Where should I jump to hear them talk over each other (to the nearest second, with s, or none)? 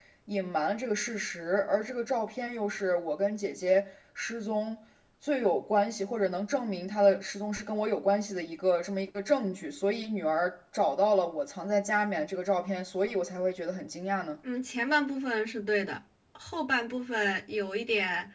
none